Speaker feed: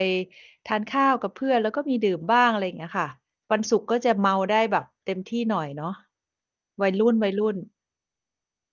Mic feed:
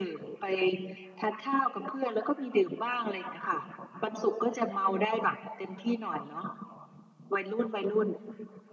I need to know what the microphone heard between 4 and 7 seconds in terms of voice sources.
echo only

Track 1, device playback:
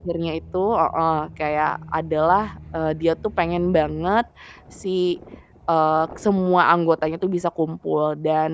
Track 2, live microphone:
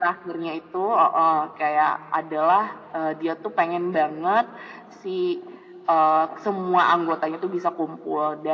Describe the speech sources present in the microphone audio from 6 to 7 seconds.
echo only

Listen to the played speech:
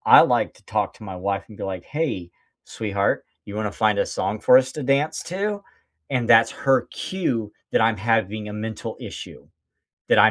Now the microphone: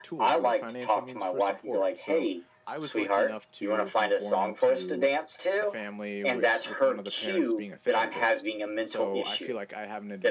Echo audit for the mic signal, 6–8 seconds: both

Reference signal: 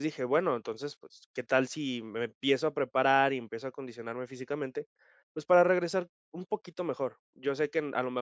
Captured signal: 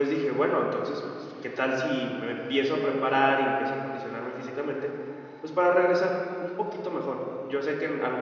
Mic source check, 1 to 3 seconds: echo only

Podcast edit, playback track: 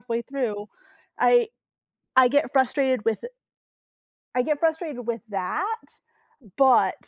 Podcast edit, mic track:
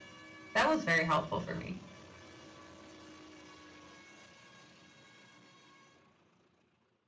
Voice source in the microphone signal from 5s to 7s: neither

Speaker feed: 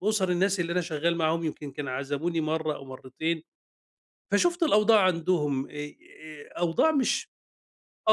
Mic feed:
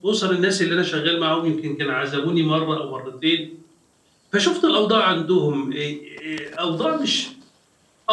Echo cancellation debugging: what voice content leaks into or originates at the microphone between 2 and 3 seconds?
echo only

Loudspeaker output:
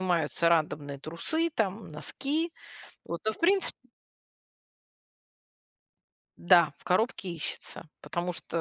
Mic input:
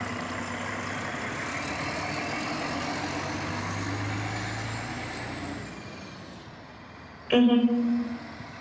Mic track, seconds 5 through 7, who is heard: neither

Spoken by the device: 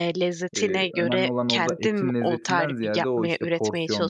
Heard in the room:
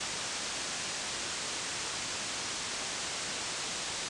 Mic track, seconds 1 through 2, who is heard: neither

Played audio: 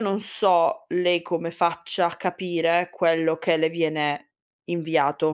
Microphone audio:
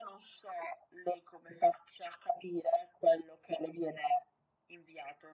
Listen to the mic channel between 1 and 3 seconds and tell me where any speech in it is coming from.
echo only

